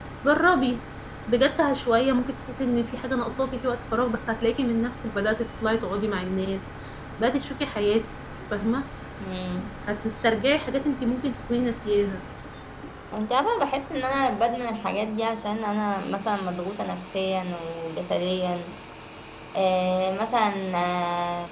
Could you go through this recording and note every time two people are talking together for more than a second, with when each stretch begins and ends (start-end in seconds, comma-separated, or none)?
none